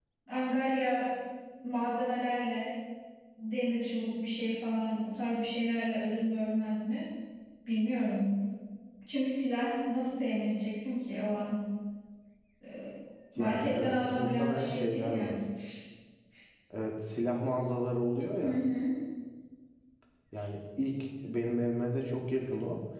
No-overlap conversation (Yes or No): No